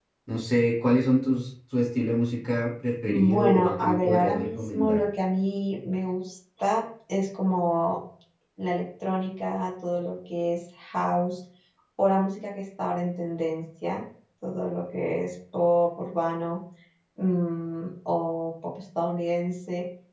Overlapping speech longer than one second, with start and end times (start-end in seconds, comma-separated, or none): 3.0-5.0